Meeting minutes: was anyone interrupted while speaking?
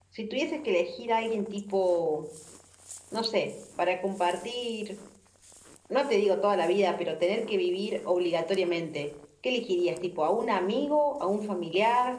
No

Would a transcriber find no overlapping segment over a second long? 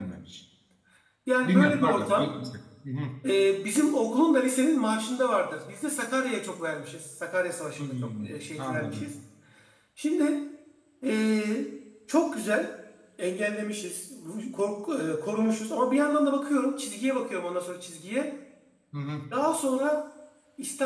No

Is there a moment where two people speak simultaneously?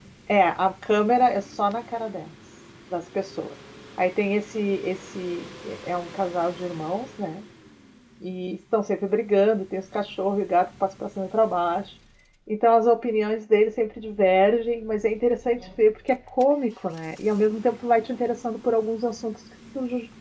No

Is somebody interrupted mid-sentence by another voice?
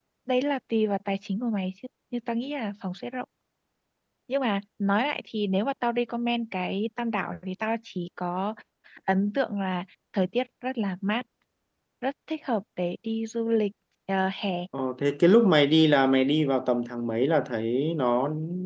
No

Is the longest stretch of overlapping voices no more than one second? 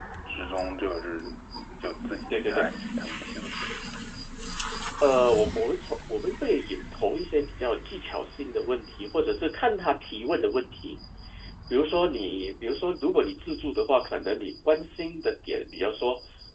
Yes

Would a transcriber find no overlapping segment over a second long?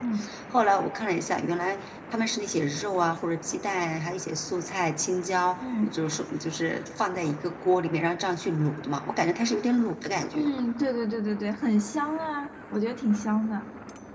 Yes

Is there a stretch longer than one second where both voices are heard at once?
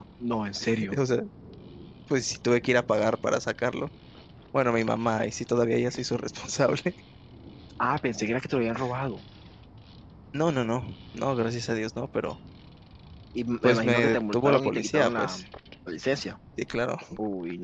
Yes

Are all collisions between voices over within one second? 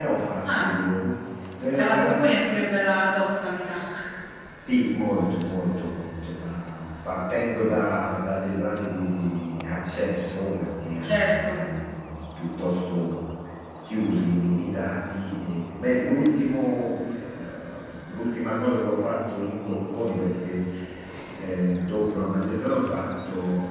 Yes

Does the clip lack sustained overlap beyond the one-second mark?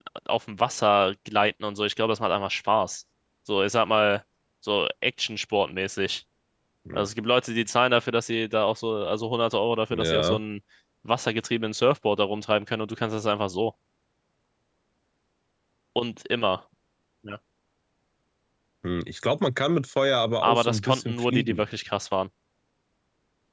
No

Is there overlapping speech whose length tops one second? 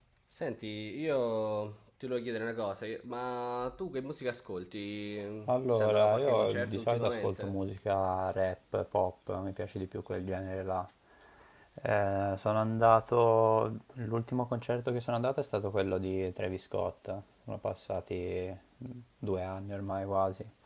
Yes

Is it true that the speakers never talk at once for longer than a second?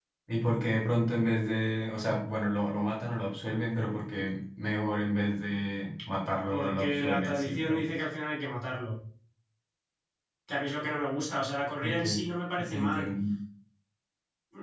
No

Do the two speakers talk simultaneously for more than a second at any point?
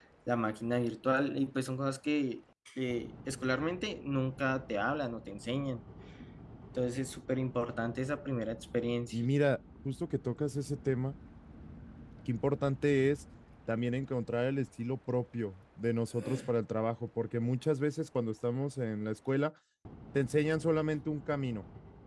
No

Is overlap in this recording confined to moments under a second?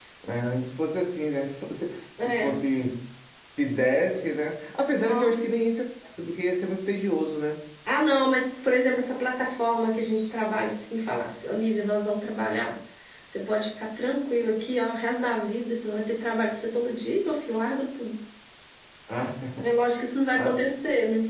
Yes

